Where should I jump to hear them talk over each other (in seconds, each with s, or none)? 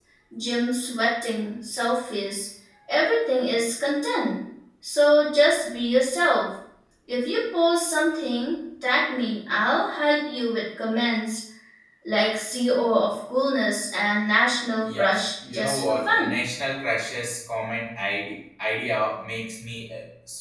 14.8 s